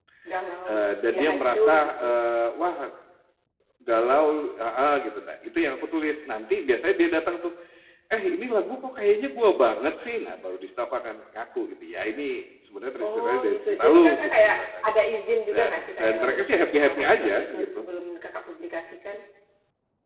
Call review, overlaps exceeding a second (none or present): present